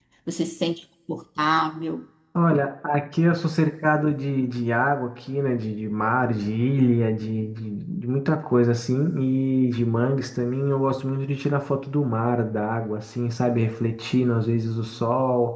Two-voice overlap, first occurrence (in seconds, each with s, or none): none